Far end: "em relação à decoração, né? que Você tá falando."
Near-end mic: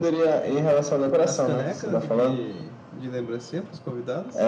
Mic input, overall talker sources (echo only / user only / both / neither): both